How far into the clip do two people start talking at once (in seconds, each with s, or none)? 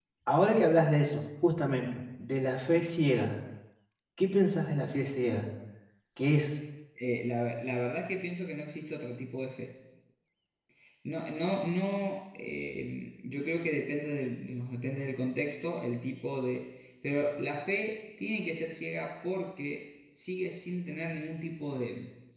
none